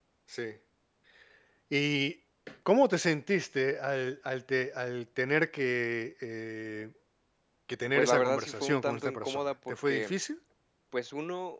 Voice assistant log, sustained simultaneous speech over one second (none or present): present